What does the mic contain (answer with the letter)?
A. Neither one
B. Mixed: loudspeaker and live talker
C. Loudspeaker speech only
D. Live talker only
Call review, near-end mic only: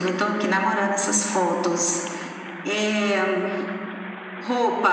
C